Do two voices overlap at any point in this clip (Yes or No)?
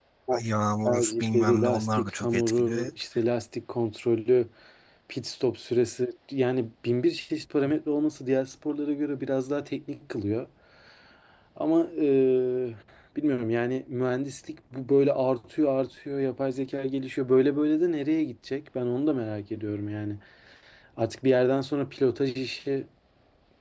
Yes